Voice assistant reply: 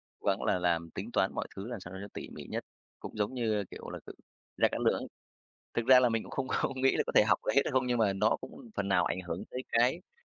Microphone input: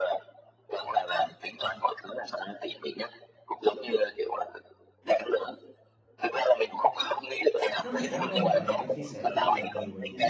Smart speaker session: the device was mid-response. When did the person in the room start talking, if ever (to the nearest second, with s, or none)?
8 s